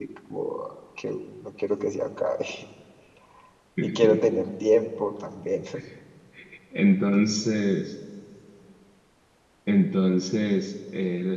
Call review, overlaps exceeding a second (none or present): none